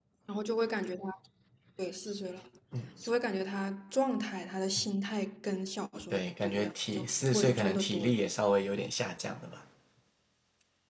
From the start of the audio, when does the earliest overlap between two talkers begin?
6.1 s

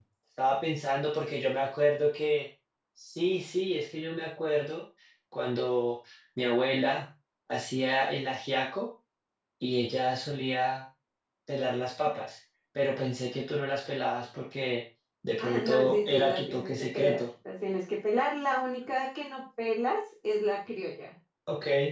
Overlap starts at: 15.4 s

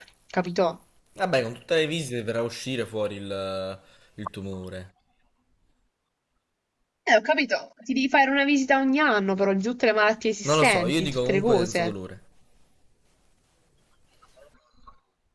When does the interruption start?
10.4 s

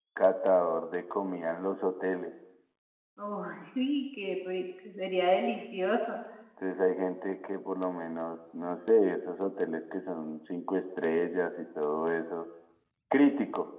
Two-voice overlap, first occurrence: none

